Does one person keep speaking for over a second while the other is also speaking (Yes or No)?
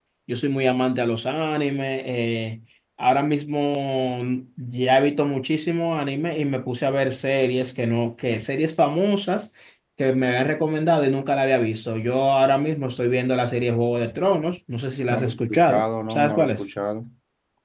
Yes